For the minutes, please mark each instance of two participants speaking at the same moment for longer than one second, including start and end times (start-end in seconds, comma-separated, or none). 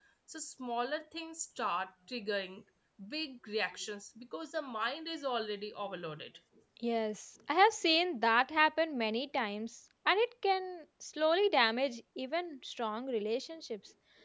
none